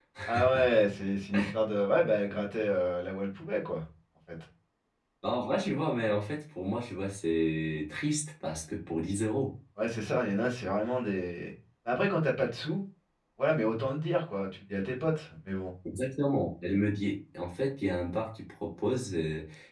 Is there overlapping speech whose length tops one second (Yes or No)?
No